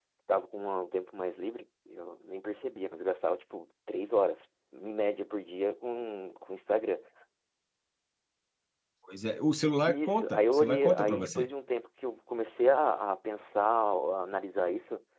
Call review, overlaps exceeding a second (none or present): present